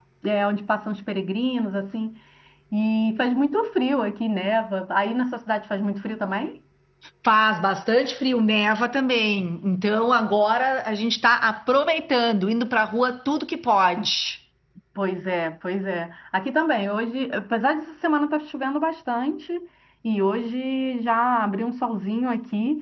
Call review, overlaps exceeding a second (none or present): none